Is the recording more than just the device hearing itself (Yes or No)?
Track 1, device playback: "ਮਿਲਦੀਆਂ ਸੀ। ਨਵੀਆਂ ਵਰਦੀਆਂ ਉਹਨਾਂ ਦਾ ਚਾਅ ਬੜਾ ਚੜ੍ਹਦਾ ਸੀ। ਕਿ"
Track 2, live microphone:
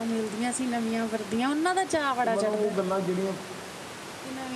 Yes